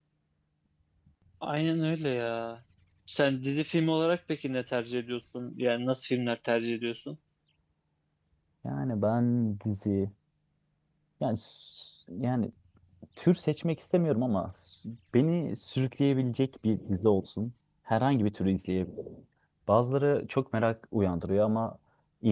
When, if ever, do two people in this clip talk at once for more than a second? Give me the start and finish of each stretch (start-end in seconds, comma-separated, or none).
none